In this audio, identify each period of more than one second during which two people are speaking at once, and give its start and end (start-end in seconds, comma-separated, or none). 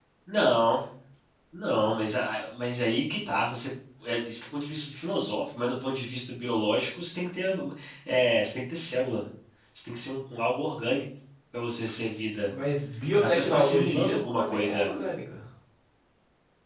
13.2-14.9